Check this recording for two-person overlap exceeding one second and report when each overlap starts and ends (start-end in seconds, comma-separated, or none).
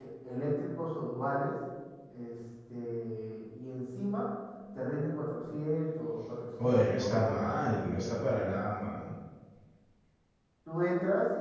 6.6-8.3